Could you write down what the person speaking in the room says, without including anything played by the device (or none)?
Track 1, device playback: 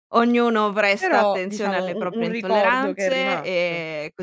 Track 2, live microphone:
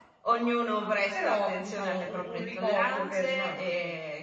none